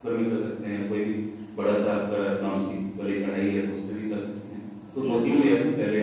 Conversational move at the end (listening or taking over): listening